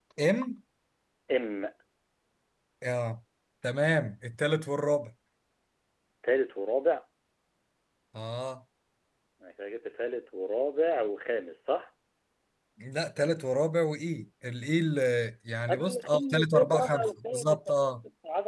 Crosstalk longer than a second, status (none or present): present